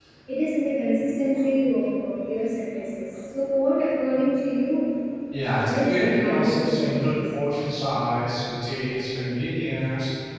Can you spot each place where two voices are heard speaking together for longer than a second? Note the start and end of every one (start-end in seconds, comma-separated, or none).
5.8-7.1